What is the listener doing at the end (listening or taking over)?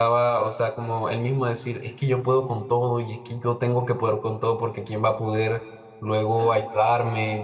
listening